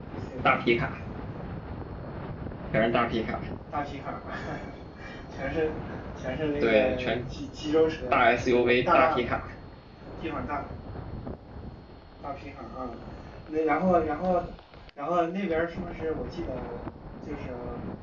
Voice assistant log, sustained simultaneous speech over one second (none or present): present